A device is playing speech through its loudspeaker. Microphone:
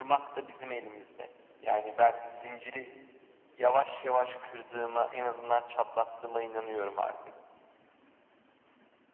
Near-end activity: none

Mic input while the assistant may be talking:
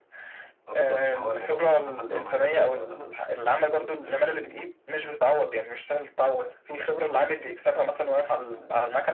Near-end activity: present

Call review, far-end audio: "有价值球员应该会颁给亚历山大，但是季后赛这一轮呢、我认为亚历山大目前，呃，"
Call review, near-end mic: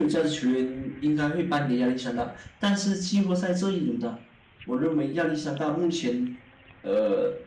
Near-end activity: none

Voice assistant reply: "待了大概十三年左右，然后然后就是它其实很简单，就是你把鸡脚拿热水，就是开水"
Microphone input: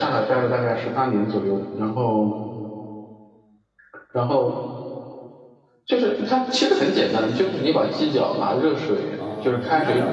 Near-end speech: present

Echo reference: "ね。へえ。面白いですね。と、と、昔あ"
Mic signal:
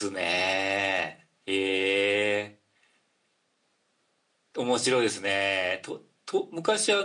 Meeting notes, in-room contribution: none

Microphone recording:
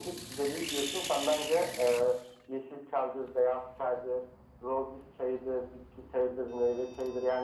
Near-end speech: none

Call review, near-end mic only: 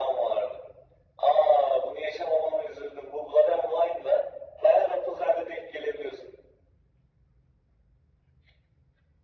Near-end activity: none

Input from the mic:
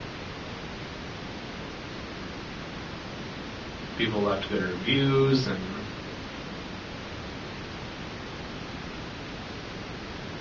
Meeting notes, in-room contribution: present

